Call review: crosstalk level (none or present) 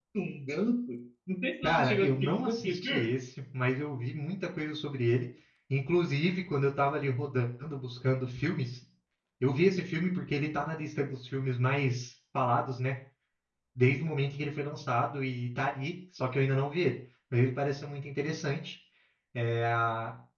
present